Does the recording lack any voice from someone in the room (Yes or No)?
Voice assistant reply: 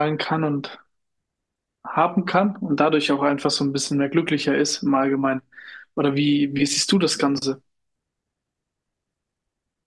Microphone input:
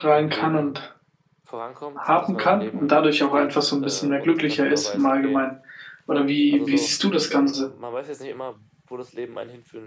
No